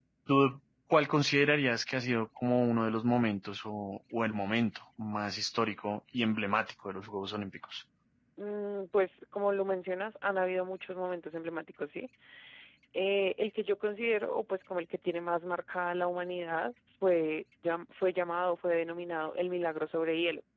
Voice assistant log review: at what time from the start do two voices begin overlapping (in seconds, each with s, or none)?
none